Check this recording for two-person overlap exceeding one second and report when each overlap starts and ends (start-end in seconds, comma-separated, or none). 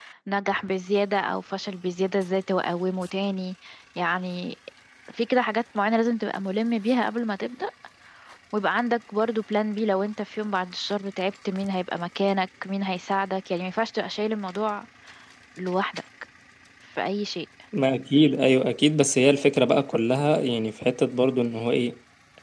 none